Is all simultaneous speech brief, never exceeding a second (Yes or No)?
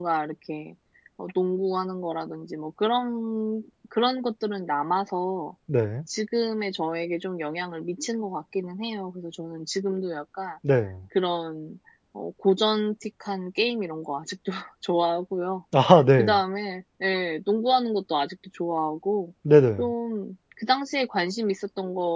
Yes